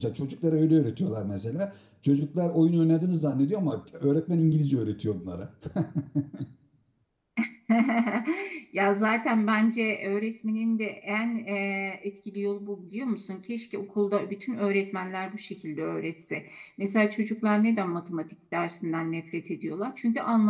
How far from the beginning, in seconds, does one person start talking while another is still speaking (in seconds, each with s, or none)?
none